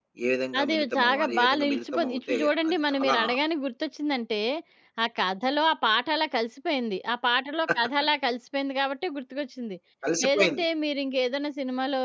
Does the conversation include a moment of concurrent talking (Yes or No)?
Yes